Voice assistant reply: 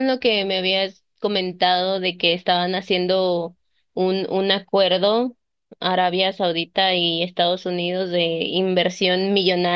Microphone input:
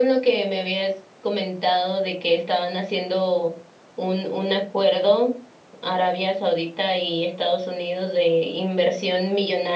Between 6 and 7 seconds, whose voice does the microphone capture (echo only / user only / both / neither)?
echo only